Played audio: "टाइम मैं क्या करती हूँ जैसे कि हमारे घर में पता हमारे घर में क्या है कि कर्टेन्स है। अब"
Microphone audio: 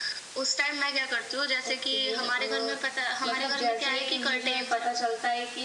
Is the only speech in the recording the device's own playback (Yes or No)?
No